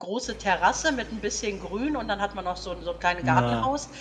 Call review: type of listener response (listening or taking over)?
listening